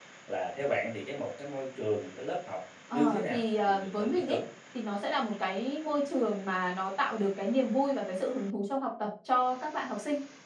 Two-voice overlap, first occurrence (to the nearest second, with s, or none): 3 s